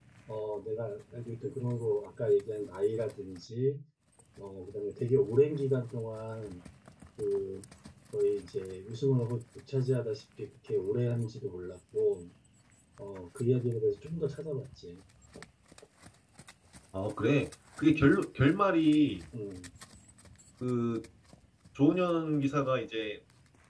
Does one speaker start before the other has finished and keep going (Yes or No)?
No